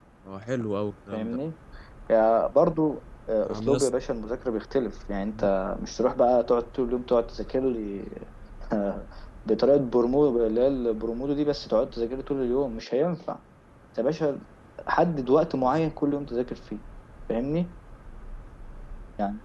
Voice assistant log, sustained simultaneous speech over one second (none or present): none